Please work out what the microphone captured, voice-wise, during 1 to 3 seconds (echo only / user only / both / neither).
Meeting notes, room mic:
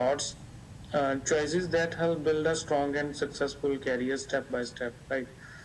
echo only